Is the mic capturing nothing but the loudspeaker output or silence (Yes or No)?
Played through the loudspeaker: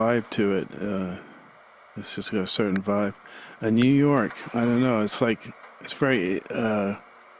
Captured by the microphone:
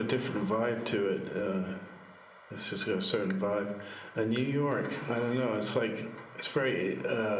Yes